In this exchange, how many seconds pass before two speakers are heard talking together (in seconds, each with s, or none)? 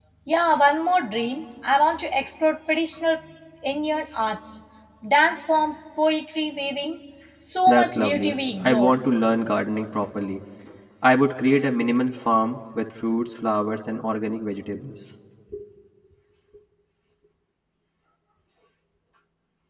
7.7 s